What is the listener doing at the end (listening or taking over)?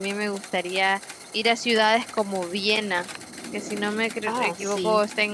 listening